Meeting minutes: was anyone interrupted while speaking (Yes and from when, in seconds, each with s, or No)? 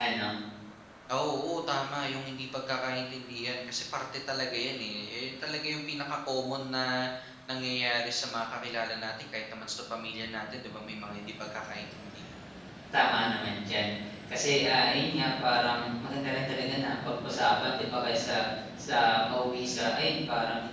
No